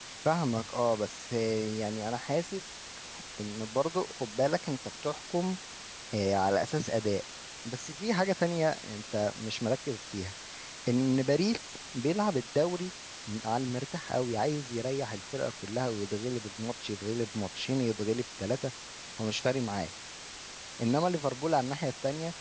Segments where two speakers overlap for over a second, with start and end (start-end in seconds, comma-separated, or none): none